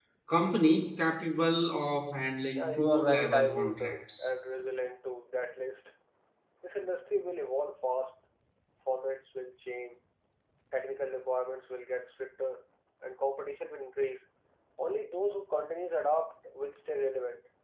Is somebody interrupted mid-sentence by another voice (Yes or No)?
Yes